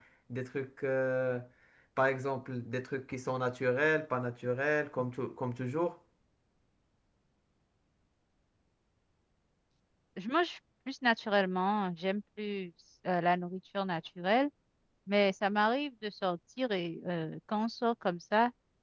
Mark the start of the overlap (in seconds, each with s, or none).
none